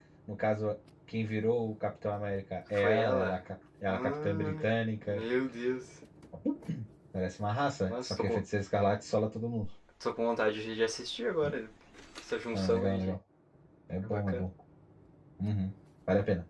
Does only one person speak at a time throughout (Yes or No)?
No